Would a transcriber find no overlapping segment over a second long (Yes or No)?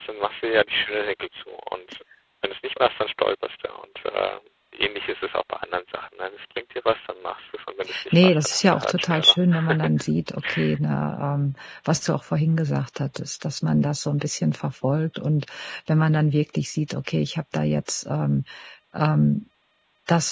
No